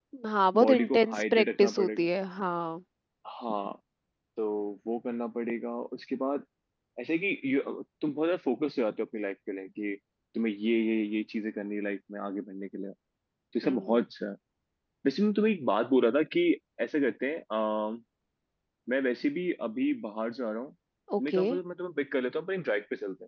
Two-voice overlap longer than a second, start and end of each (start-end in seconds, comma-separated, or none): 0.7-2.1